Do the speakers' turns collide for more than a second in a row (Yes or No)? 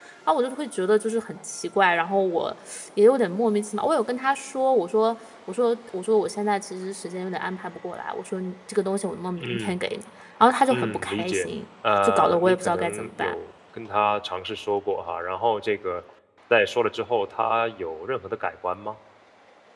Yes